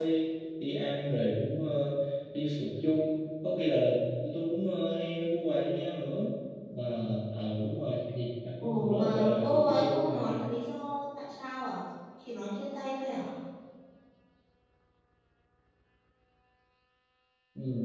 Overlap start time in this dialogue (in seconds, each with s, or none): 8.6 s